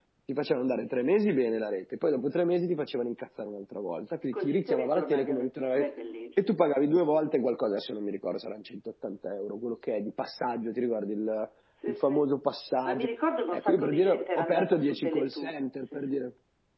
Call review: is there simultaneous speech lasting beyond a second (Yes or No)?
Yes